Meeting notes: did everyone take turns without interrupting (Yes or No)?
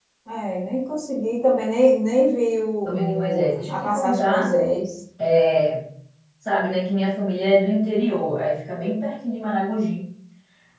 No